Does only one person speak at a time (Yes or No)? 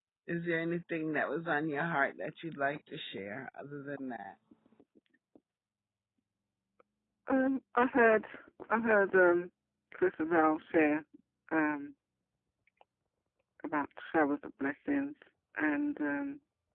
Yes